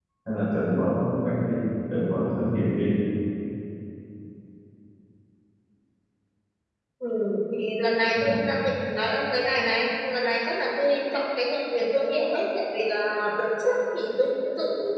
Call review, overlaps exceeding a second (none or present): none